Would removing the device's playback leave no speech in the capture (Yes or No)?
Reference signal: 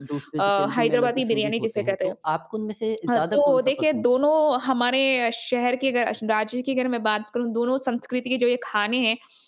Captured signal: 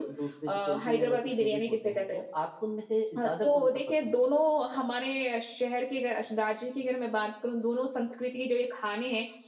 Yes